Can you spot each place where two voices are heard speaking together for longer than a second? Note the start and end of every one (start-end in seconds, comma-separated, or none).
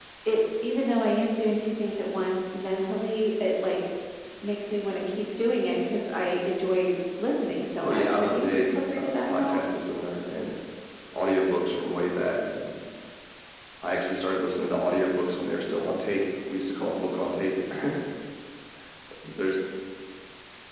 7.8-9.7